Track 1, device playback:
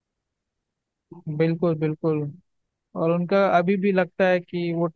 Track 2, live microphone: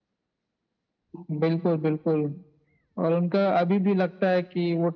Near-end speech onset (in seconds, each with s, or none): none